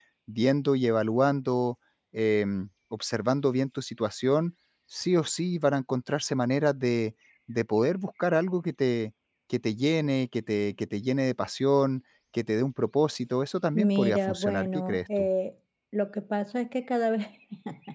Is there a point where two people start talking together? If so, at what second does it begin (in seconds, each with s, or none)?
13.7 s